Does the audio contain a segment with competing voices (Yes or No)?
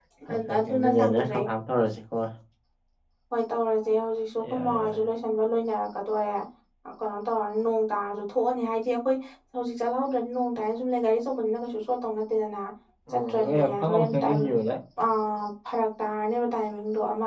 Yes